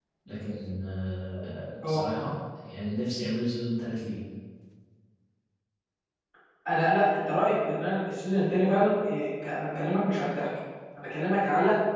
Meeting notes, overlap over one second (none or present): none